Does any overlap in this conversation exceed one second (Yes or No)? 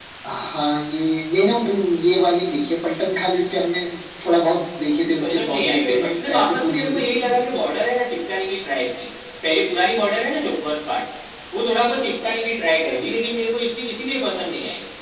Yes